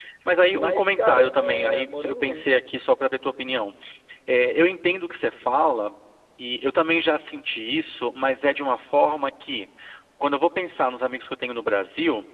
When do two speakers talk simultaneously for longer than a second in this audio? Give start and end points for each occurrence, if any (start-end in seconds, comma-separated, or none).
0.5-2.5